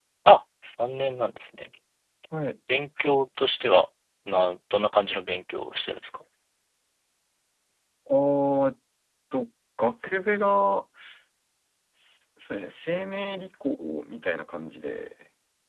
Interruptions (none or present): none